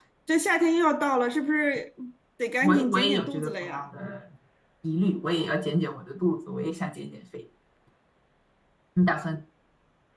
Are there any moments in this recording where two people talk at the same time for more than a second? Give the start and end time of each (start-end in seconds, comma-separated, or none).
2.6-3.8